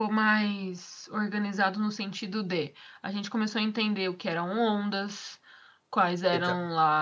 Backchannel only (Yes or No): Yes